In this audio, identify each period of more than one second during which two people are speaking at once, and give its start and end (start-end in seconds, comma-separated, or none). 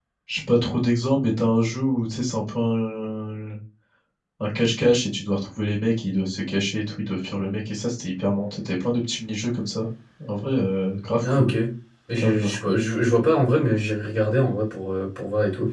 none